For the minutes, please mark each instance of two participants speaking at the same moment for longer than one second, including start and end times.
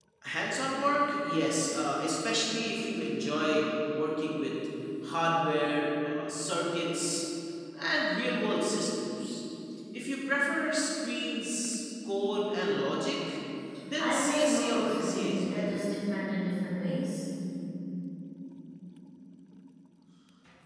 14.0-15.8

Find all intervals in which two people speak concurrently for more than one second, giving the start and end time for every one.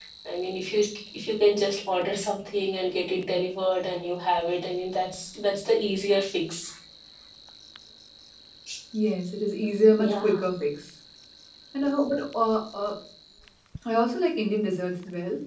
none

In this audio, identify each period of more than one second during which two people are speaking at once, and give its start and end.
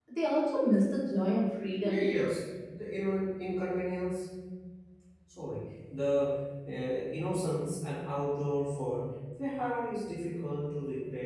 none

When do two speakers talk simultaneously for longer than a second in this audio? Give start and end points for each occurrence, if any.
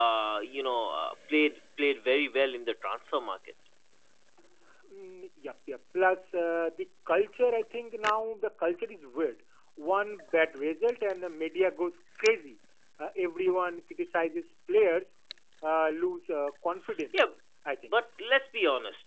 none

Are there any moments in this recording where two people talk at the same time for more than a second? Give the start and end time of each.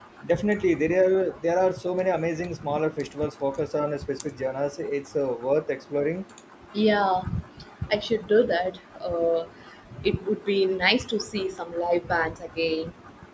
none

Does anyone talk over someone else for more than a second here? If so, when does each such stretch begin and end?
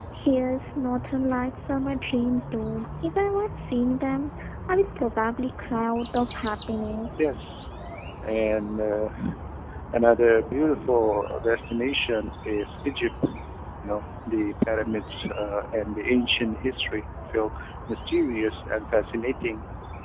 none

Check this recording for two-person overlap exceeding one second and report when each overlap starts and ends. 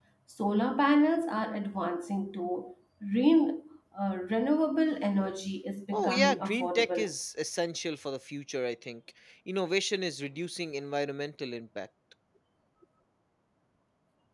5.9-7.1

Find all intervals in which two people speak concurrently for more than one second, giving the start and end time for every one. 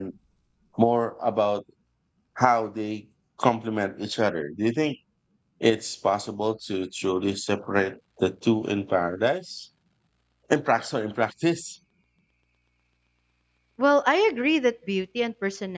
none

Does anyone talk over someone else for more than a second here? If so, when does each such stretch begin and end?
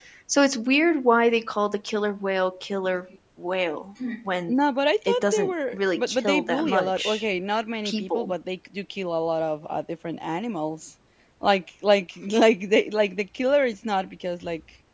5.1-7.3

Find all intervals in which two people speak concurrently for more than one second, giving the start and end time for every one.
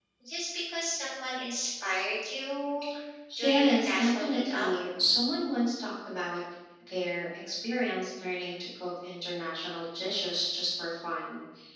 3.4-4.7

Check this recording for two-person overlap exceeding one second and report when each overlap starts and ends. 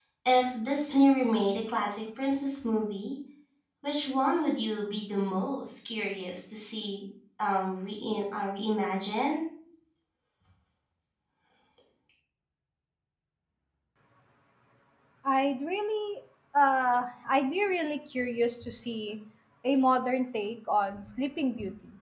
none

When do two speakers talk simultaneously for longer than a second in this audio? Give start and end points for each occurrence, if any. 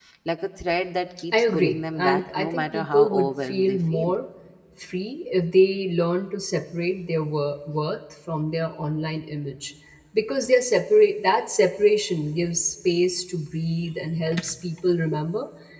1.3-4.1

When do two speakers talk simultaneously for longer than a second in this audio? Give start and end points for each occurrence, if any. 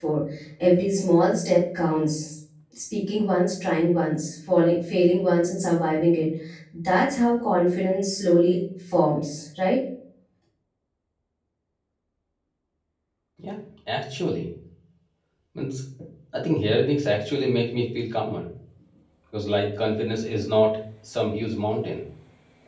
none

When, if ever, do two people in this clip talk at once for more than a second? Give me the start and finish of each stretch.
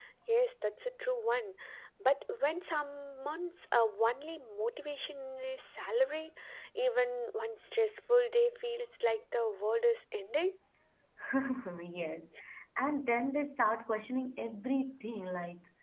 none

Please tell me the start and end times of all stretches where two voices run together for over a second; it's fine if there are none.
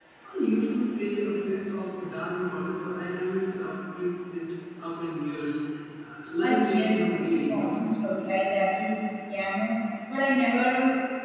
6.4-7.8

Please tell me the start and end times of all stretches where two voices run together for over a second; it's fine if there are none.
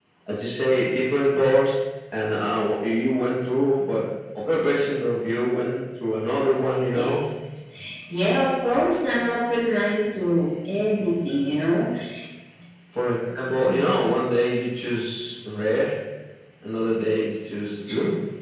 none

